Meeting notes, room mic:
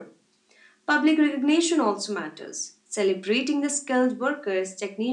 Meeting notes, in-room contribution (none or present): none